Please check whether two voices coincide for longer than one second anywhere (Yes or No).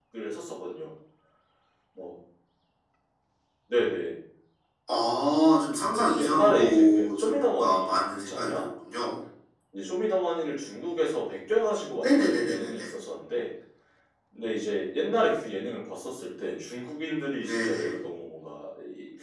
Yes